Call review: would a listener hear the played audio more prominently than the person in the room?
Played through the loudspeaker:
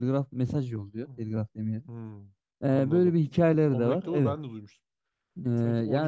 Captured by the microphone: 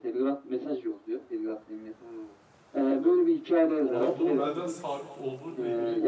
Yes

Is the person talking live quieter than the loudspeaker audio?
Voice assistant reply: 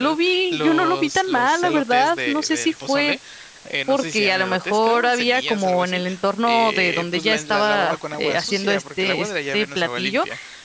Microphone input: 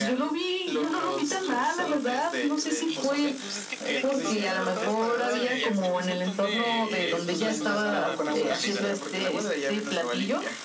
Yes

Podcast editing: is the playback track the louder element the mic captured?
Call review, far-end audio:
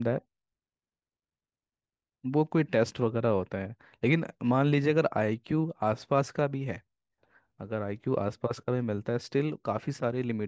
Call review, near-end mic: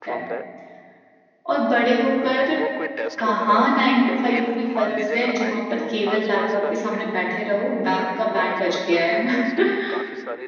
No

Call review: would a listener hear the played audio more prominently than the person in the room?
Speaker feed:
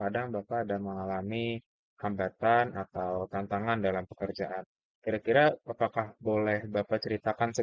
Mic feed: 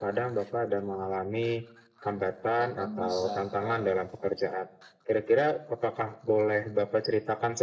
Yes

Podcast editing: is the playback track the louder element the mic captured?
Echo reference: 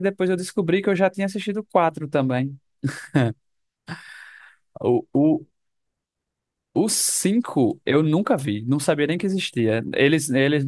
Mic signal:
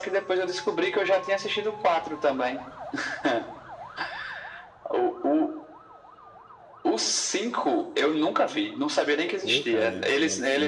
Yes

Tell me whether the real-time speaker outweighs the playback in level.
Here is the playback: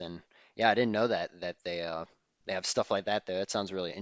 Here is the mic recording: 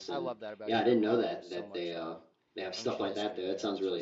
No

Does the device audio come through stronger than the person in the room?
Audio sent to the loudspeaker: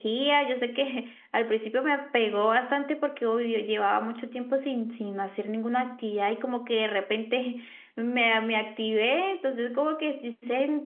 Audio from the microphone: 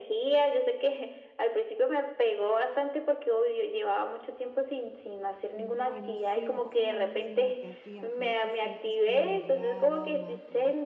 Yes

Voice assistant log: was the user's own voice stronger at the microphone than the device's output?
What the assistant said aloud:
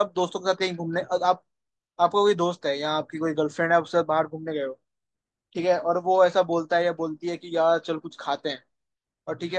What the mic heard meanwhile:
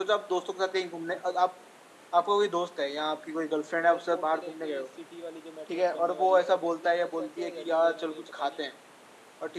No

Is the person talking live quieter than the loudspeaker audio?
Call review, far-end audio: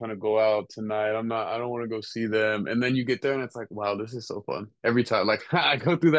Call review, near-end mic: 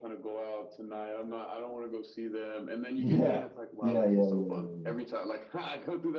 No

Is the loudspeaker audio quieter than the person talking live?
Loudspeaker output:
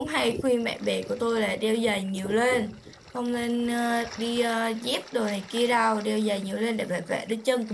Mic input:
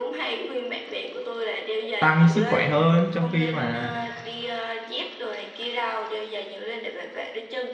Yes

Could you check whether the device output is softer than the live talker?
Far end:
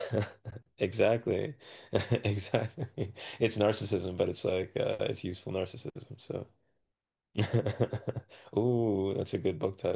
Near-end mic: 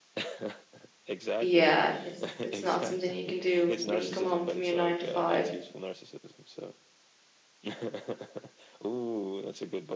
Yes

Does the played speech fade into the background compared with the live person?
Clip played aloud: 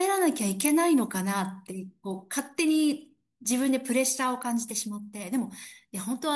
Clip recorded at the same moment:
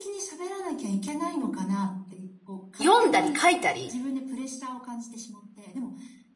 Yes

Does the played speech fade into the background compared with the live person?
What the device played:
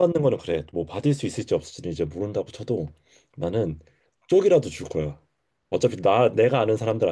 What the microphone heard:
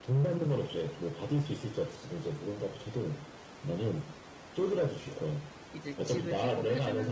No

